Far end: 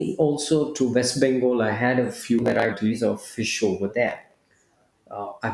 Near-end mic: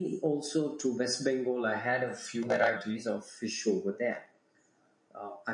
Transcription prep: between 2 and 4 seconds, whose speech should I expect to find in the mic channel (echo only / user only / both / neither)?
echo only